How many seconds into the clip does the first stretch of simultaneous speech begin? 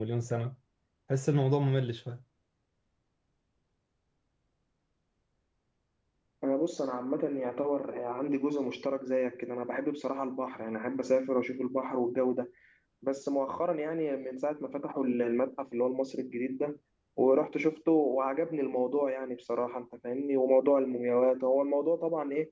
none

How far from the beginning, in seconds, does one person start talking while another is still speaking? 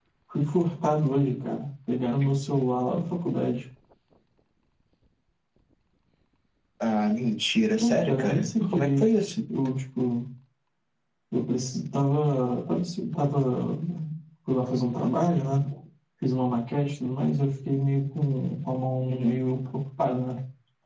8 s

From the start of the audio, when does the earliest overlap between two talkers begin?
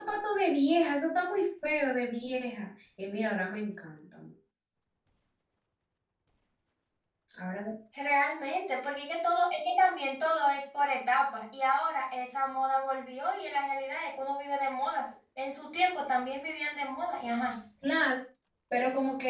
none

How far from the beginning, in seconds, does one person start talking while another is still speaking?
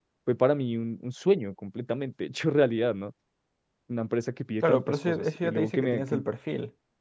5 s

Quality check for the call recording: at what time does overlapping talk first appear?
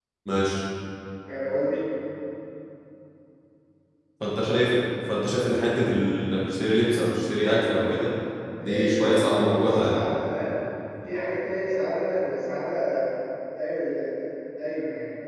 9 s

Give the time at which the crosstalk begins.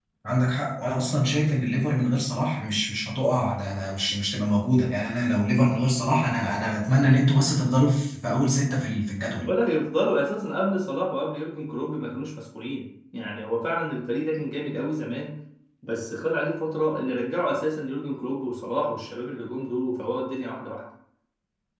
none

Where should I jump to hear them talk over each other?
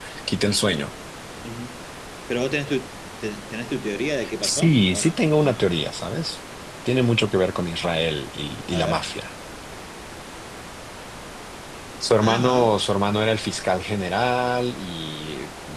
4 s

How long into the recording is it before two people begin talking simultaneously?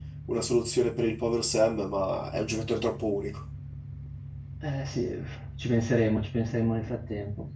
none

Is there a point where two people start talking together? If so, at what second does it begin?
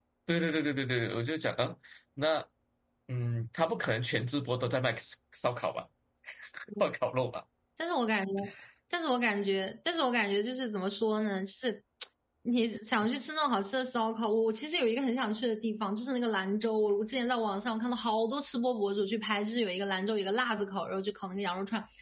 none

